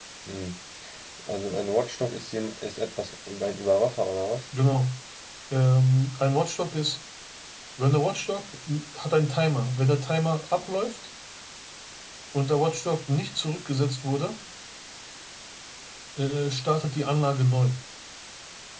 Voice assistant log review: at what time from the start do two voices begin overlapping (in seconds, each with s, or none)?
none